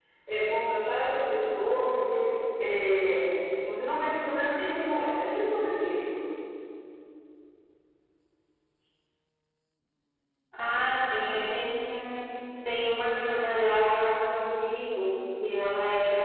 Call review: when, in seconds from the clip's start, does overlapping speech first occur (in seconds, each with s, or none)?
none